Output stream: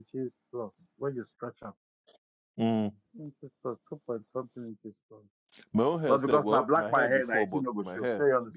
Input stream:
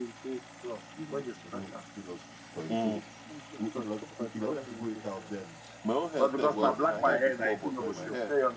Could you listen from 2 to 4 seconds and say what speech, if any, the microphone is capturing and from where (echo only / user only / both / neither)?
both